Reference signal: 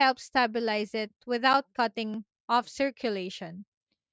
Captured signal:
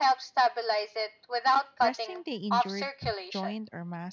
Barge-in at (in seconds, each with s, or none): 1.8 s